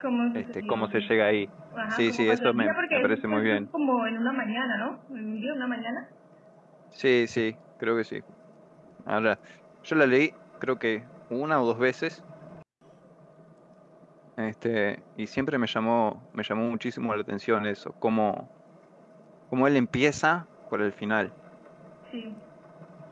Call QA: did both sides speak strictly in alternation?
No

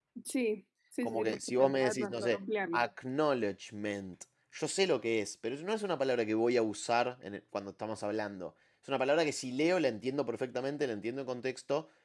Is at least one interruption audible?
Yes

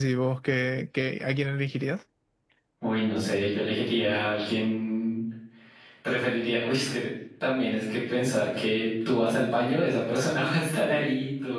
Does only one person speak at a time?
Yes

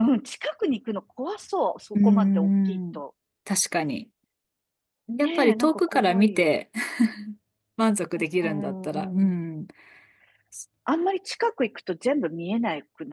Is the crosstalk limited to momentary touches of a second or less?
No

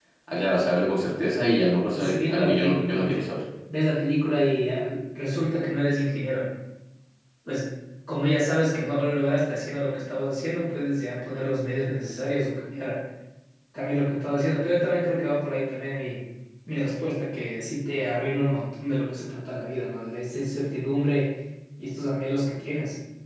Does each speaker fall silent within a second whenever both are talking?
No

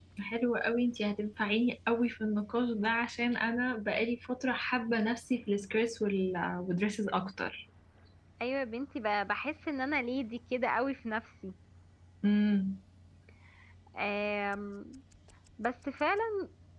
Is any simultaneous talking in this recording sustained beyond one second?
No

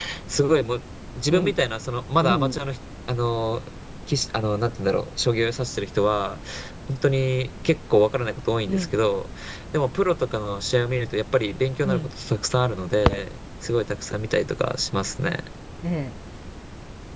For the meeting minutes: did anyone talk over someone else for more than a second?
No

